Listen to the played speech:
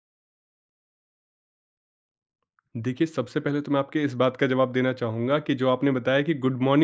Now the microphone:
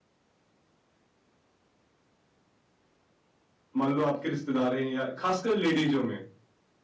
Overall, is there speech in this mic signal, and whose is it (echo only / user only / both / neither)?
user only